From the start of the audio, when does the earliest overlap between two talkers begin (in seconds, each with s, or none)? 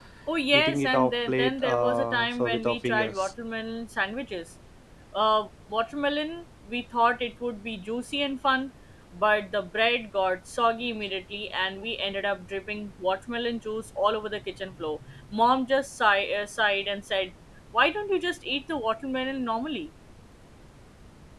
0.5 s